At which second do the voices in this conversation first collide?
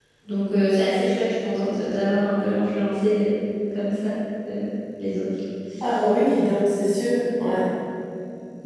none

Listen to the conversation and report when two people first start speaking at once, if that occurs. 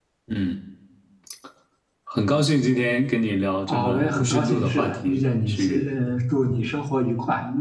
3.7 s

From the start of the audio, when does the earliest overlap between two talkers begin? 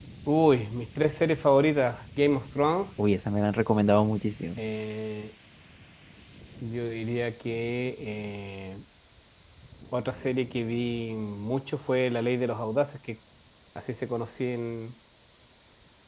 none

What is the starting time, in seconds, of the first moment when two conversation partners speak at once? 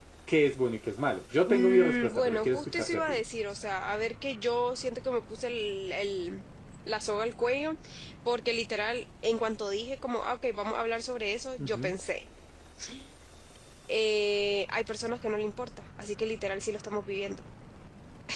1.4 s

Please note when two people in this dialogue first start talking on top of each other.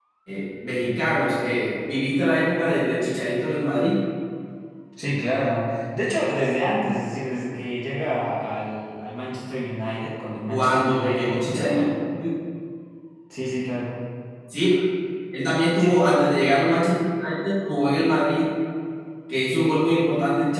10.5 s

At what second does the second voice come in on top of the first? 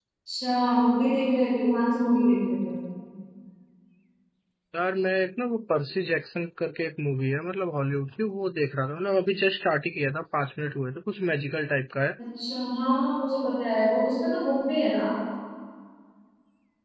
none

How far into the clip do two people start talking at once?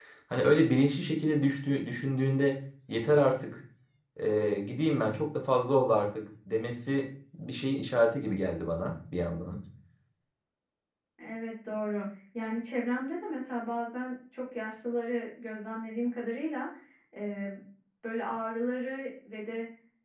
none

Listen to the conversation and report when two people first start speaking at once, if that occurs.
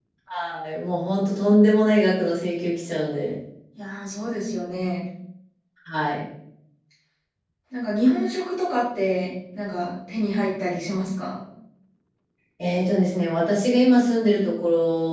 none

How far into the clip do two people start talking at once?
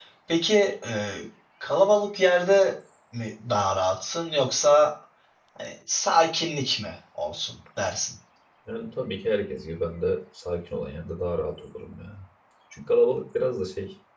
none

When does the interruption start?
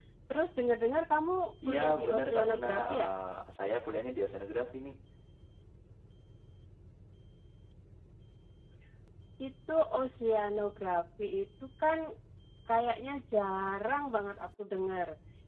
1.6 s

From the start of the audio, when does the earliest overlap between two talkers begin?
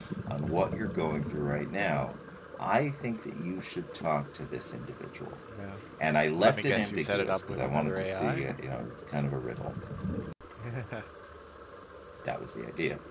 6.4 s

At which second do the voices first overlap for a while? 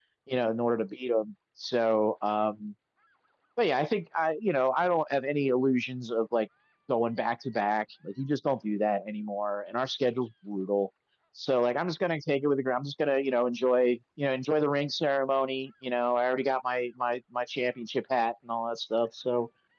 none

